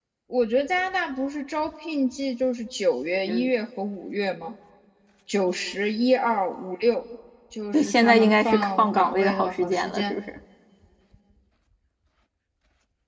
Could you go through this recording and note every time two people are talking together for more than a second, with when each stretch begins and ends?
7.7-10.1

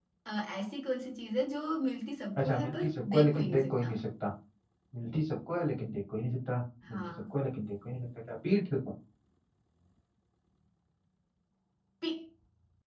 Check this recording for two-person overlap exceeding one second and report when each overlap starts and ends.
2.4-4.0

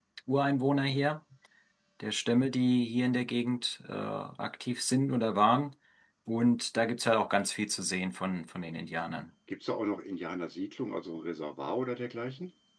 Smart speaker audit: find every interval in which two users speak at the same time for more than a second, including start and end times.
none

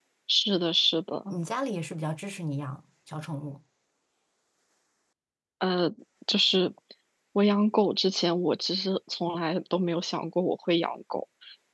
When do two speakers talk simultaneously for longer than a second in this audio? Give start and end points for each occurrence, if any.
none

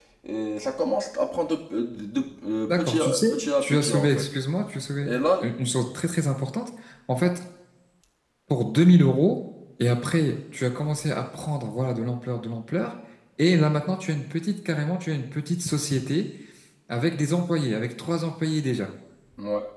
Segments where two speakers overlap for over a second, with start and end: 2.7-4.2

